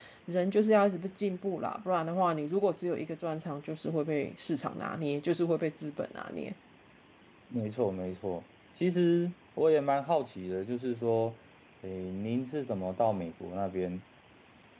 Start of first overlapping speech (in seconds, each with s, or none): none